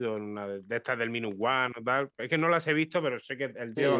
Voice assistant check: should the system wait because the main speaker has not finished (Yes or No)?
No